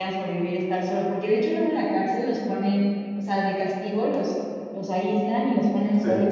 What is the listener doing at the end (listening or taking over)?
listening